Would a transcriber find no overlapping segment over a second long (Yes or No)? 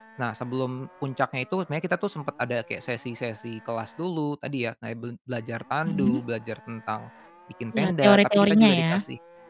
No